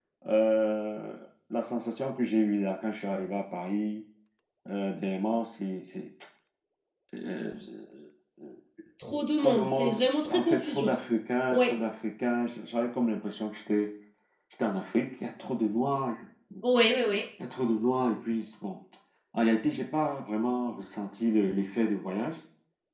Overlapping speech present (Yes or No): Yes